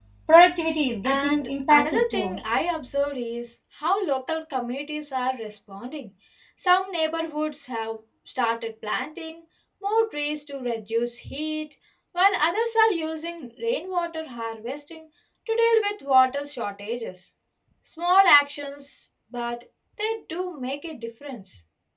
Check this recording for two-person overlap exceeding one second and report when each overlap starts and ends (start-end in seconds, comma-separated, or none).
1.0-2.4